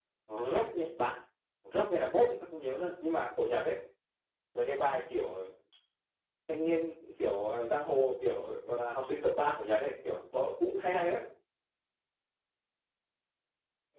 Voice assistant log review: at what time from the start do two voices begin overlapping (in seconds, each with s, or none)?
none